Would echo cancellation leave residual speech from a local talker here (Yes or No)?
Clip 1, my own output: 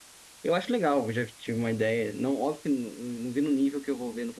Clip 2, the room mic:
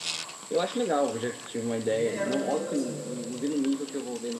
Yes